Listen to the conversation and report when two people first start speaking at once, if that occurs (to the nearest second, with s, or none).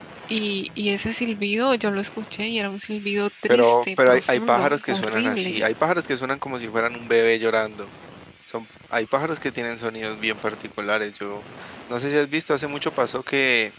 3 s